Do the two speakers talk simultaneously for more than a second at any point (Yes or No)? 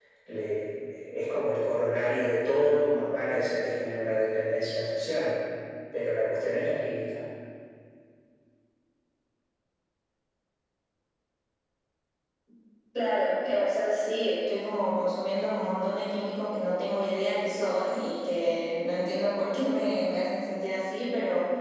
No